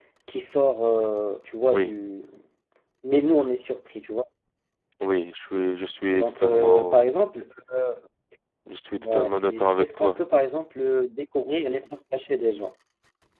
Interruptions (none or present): present